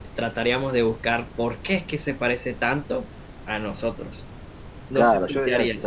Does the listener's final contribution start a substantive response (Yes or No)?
Yes